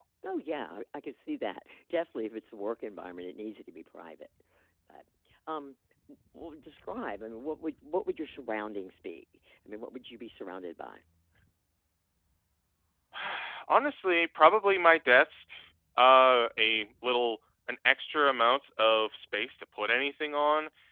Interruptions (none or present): none